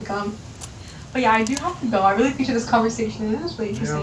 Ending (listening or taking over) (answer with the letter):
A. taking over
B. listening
A